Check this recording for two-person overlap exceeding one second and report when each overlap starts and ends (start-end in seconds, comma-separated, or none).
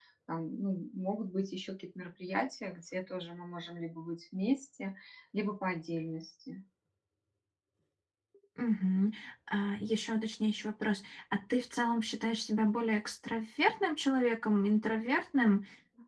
none